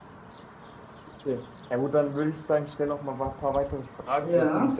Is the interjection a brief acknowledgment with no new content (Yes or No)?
Yes